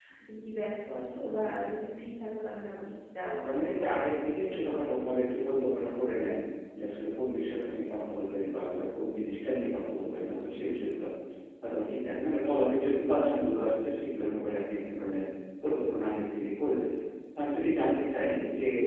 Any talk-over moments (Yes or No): Yes